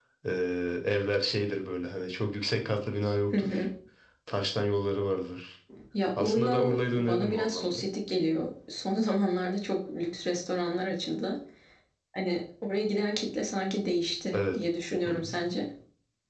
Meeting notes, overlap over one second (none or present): present